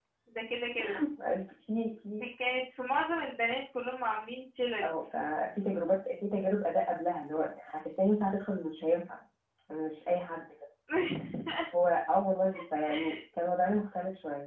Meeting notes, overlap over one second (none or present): none